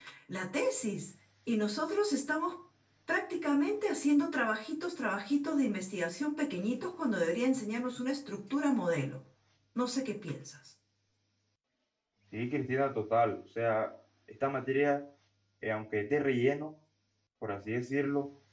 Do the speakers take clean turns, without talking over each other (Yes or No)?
Yes